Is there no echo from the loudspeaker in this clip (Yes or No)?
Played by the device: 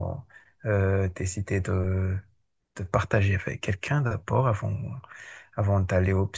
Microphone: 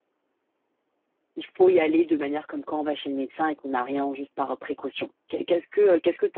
Yes